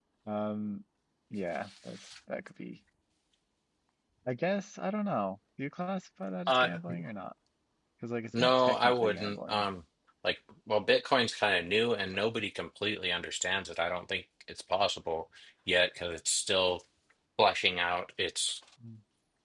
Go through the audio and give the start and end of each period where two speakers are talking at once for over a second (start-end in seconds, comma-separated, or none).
8.4-9.7